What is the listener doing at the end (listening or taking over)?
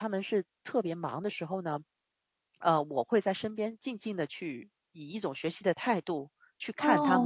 taking over